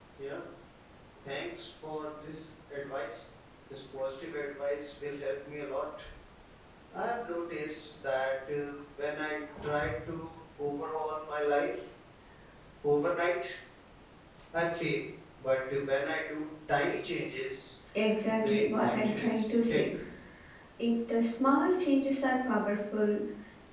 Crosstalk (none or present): present